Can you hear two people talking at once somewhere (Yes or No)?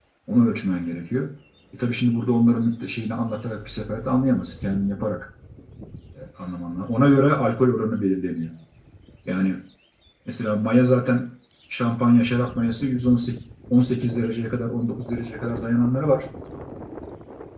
No